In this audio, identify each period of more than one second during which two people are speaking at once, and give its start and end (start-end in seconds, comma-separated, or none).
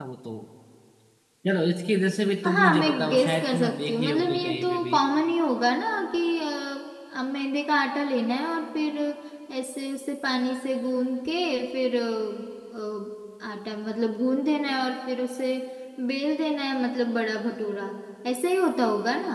2.5-5.0